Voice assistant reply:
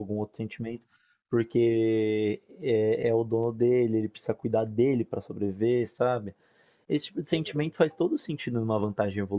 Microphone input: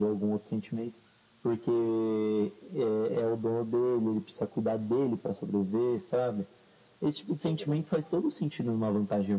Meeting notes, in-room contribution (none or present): none